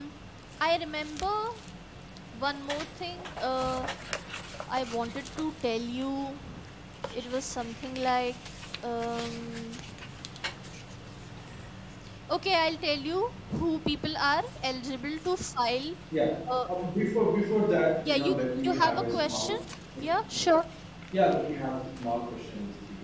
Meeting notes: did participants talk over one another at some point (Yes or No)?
Yes